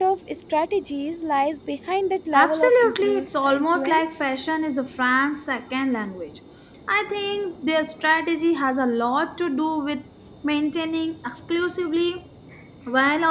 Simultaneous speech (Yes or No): Yes